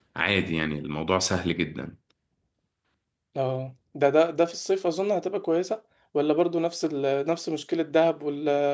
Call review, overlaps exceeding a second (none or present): none